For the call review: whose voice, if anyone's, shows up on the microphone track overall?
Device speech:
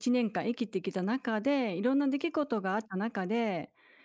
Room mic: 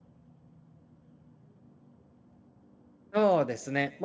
user only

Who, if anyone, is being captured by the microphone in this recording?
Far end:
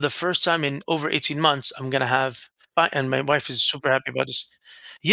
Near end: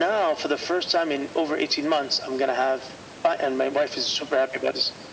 echo only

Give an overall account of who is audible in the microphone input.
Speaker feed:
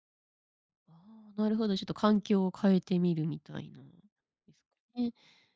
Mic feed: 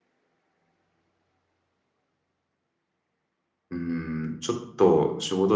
user only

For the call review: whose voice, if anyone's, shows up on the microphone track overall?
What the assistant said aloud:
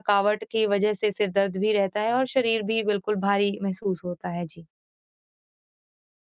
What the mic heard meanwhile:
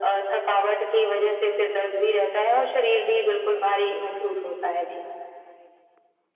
echo only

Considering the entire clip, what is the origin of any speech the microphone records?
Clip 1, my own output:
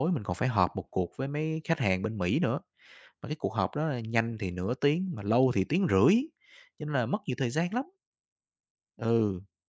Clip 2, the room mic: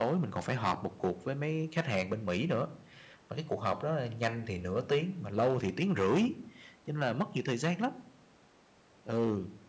echo only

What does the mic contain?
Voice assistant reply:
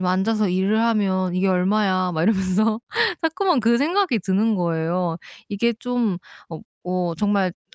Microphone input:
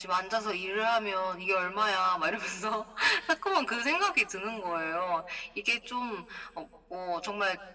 echo only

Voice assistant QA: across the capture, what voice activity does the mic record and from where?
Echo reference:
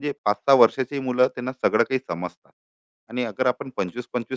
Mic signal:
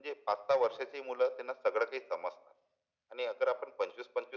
echo only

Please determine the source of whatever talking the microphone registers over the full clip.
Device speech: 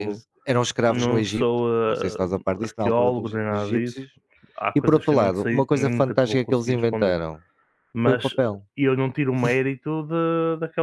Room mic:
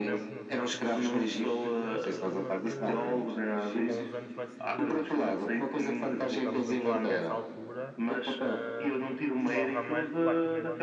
both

